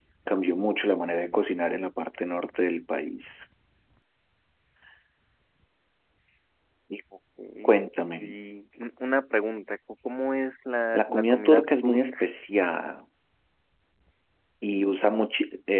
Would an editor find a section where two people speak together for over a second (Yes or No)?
Yes